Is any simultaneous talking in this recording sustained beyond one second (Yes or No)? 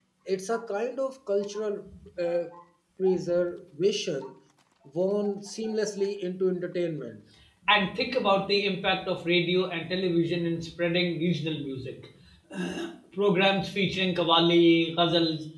No